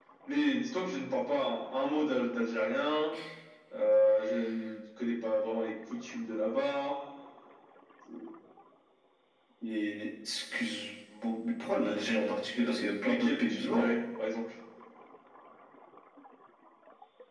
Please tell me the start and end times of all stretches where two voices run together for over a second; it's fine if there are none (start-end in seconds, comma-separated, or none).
12.6-13.9